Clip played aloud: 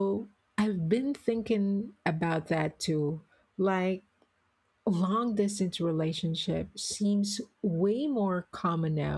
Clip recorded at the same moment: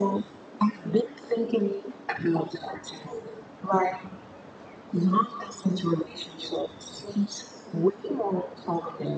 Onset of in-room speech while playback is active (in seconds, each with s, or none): none